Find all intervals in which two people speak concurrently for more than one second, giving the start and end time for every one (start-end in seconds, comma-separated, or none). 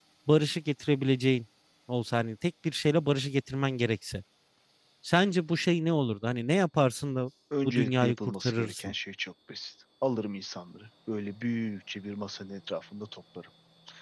7.6-8.9